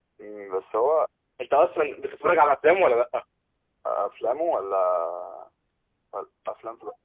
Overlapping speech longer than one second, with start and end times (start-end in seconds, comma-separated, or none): none